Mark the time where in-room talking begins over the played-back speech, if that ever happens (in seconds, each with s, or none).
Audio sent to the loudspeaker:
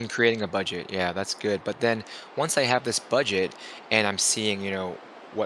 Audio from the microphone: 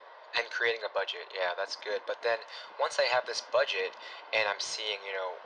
none